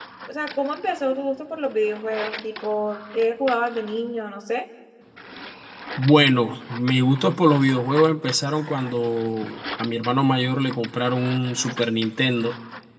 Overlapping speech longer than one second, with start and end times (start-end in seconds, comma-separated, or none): none